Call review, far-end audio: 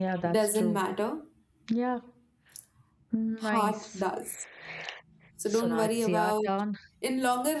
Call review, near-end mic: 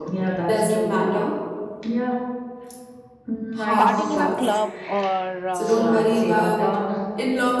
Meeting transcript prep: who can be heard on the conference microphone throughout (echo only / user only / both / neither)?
both